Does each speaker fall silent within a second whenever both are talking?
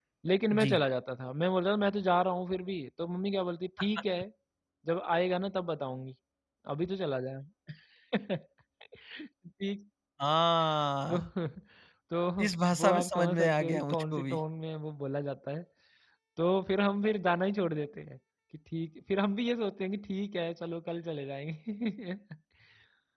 No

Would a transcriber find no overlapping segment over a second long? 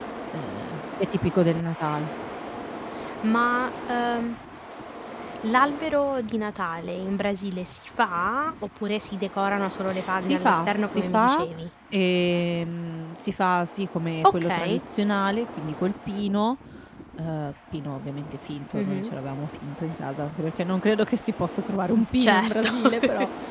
No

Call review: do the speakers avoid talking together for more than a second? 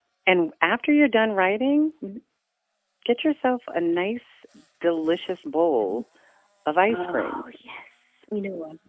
Yes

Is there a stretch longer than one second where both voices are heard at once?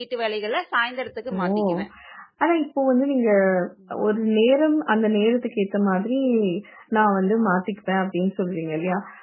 No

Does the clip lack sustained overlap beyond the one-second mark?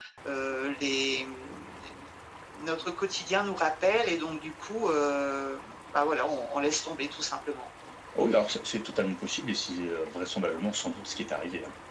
Yes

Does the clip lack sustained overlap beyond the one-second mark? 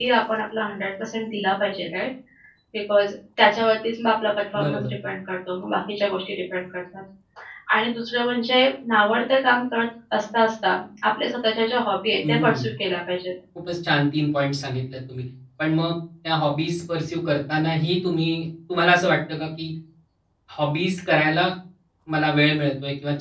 Yes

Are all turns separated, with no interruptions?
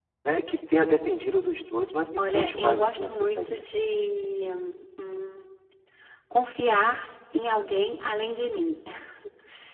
No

